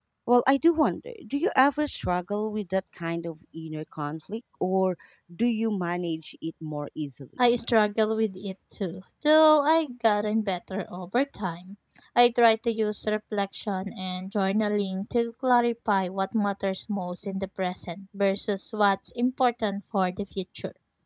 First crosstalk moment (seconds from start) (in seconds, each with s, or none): none